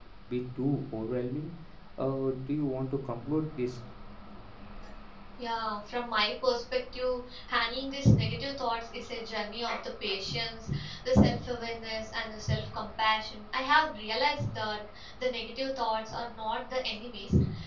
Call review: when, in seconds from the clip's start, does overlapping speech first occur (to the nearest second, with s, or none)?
none